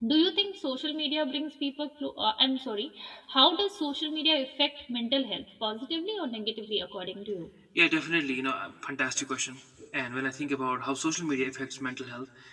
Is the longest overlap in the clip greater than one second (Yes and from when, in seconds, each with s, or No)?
No